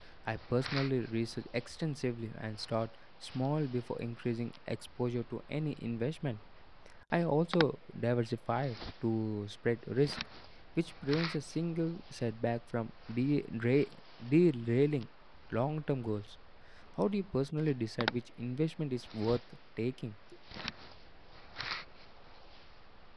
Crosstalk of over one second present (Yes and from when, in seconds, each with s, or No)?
No